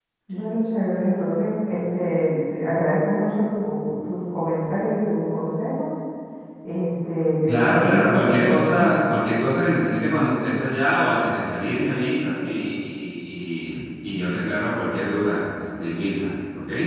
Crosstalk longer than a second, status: present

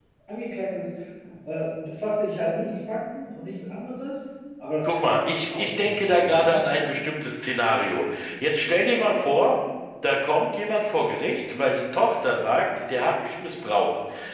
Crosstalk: present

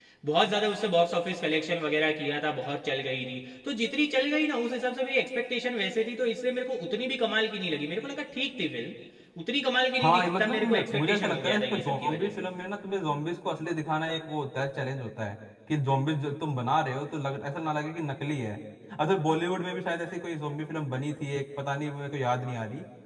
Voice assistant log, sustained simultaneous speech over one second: present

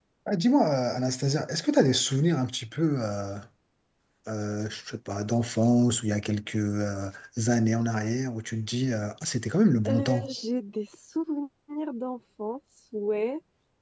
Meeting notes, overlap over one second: none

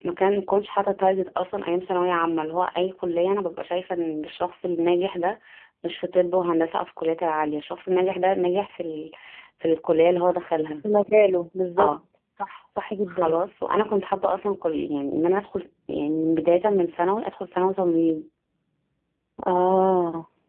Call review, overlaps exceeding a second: none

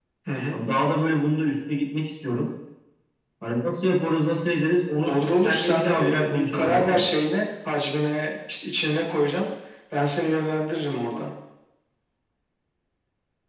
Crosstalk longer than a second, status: present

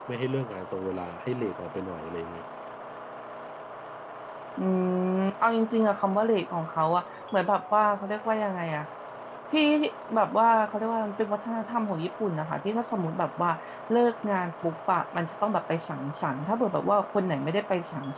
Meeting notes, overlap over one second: none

